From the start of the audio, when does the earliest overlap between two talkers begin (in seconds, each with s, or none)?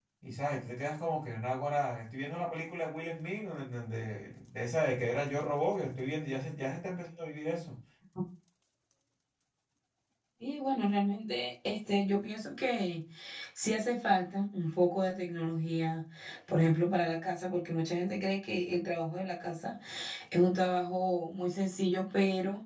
none